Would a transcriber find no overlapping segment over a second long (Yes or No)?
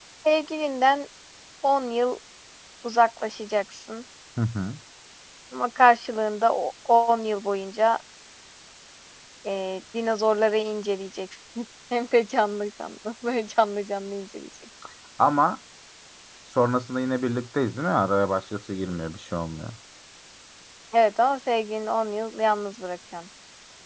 Yes